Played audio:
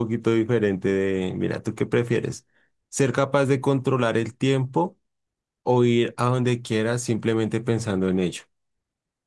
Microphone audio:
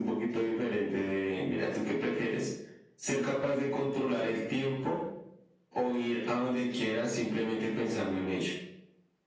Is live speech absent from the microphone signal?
Yes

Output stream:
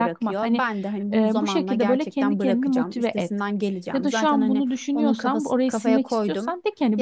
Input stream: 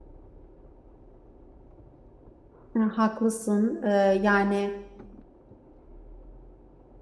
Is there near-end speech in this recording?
Yes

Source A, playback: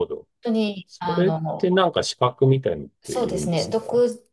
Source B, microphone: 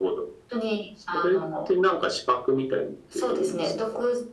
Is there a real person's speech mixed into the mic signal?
No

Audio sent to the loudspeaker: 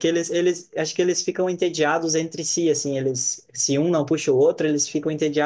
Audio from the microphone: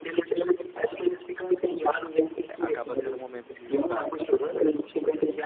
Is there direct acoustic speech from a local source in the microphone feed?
Yes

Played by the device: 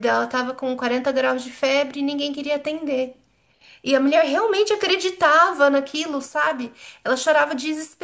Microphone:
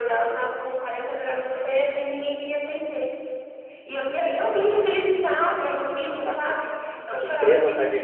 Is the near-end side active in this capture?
Yes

